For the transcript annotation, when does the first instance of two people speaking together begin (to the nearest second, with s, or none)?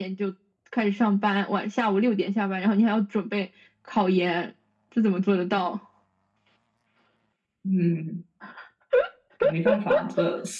none